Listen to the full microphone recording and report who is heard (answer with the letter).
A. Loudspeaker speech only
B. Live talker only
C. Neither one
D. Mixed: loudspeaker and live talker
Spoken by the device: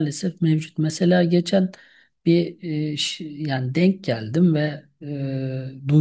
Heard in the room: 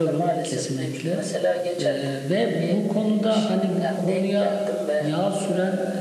D